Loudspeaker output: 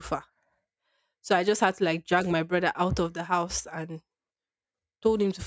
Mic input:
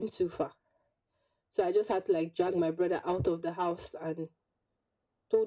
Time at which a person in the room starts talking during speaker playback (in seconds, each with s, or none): none